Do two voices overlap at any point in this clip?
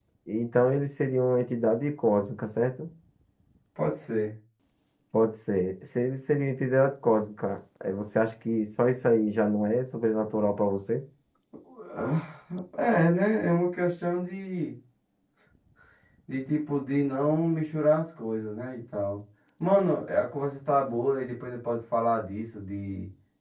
No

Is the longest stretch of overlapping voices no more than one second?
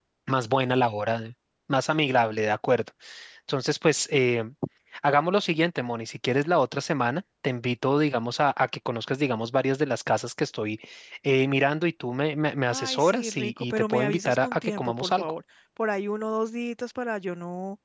No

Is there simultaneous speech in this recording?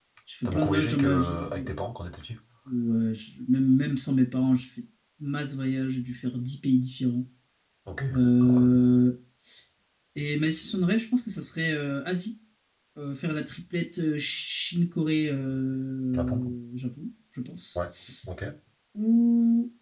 Yes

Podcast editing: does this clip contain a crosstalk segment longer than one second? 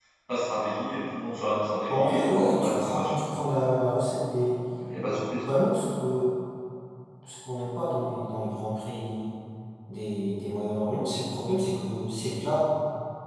Yes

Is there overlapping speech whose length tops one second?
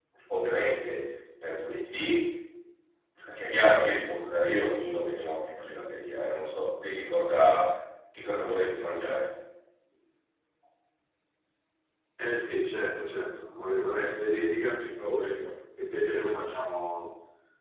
No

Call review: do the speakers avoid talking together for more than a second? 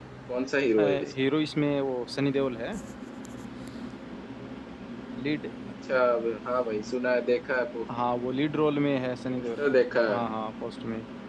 Yes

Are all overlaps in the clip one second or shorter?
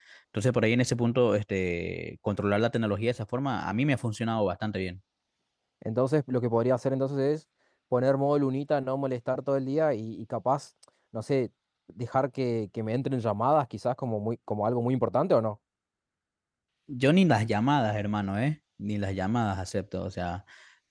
Yes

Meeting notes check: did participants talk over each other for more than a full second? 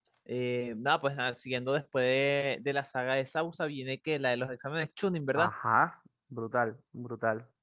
No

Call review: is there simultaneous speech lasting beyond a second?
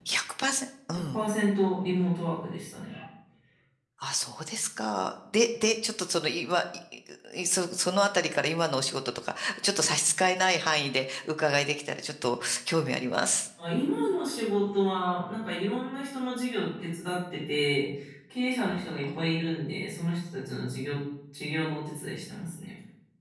No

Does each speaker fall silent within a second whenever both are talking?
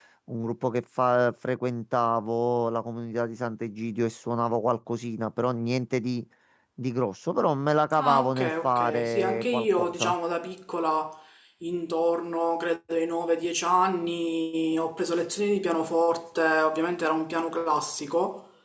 No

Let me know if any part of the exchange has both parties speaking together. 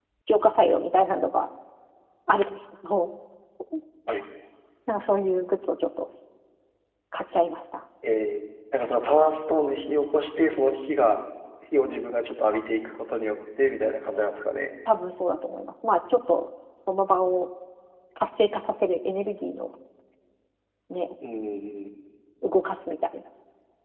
No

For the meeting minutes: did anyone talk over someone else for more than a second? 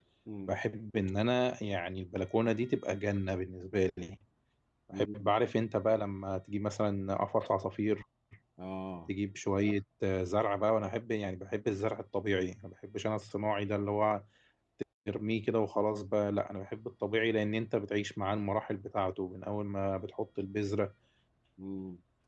No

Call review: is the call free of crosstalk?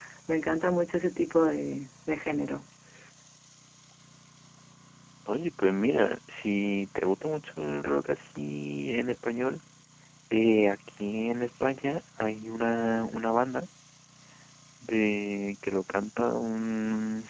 Yes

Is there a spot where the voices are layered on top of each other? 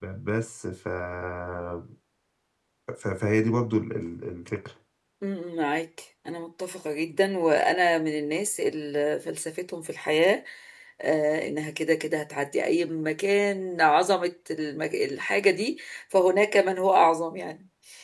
No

